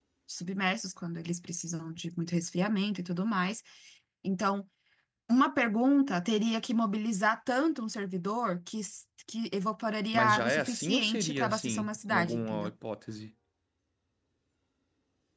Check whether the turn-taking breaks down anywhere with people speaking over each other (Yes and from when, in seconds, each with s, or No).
Yes, from 10.1 s